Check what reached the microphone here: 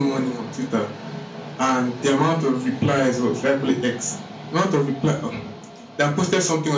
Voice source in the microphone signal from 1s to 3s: echo only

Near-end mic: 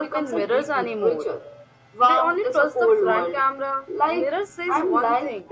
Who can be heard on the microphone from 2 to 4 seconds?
both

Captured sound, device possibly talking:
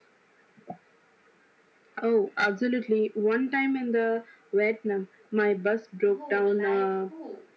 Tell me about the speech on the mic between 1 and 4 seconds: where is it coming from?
echo only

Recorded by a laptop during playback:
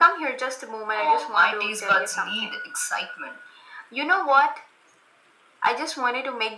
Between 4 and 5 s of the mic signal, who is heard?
echo only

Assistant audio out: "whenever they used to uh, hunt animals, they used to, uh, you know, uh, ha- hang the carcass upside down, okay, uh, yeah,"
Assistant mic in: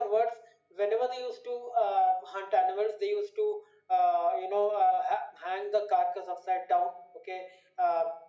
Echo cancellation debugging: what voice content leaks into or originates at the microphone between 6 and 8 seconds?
echo only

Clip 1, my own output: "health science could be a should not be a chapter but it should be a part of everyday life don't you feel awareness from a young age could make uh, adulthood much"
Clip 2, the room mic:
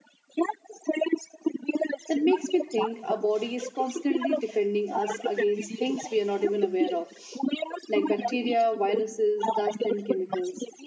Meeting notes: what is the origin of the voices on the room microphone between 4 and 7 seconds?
both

